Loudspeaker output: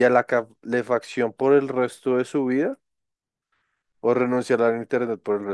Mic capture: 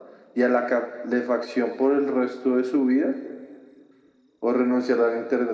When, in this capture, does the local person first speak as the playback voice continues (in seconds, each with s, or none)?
none